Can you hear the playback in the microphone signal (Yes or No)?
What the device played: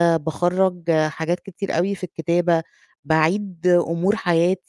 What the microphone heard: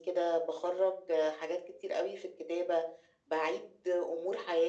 Yes